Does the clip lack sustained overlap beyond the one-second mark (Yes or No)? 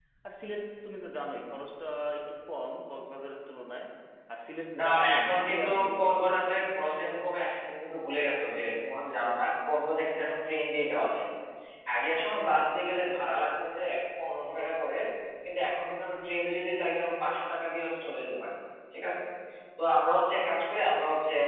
No